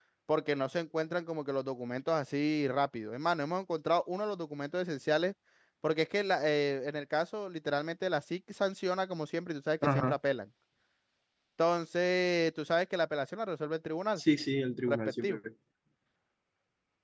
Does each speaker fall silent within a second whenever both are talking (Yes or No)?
Yes